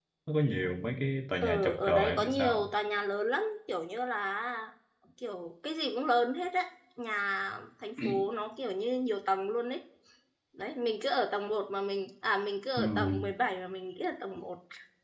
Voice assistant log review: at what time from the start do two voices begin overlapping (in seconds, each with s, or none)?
1.4 s